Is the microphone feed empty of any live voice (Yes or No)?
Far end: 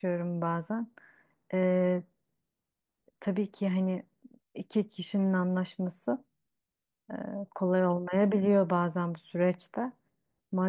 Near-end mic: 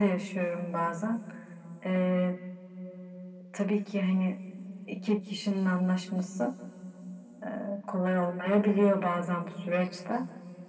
Yes